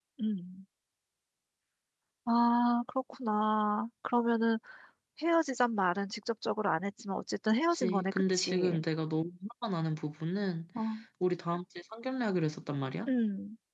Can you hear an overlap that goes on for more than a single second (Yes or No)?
Yes